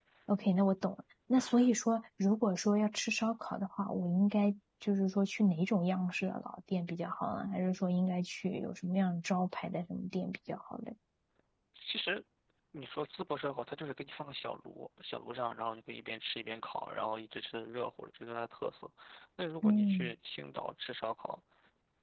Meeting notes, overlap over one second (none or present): none